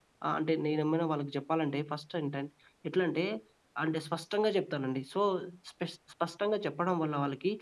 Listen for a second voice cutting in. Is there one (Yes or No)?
No